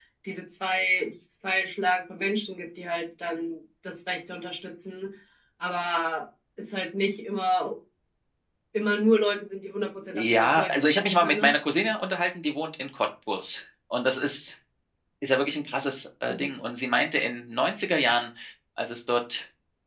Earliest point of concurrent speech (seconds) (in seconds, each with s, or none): 10.1 s